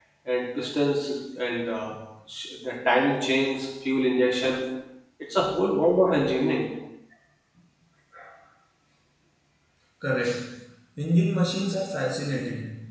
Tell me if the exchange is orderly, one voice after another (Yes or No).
Yes